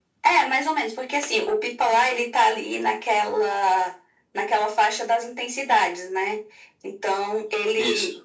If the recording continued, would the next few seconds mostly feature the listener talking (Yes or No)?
No